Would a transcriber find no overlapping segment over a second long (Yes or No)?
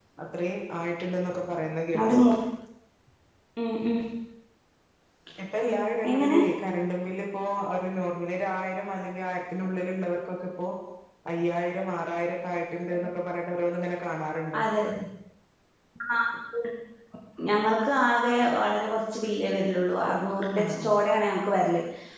Yes